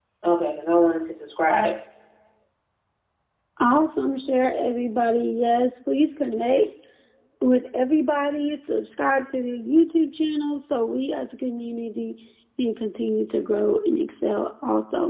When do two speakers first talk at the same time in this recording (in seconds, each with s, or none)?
none